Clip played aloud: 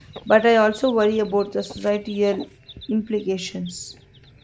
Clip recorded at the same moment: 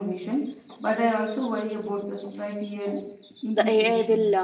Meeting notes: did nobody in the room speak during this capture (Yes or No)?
No